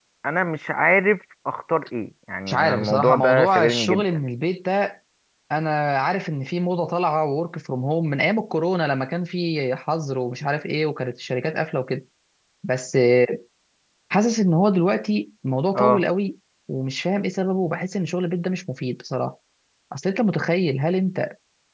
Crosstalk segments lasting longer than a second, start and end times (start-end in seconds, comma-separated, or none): 2.5-4.1